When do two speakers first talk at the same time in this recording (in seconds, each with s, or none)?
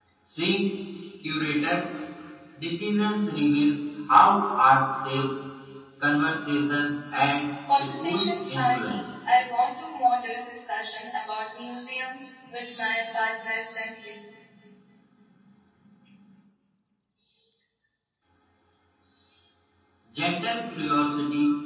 7.6 s